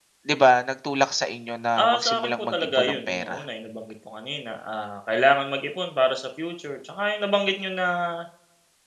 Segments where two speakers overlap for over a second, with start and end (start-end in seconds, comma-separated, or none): 1.8-3.4